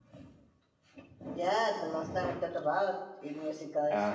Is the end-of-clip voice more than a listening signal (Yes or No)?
Yes